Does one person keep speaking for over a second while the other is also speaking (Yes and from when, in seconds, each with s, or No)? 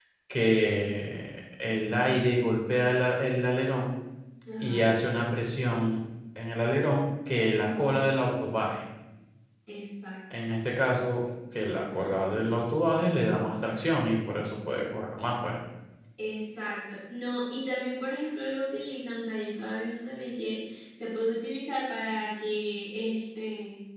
No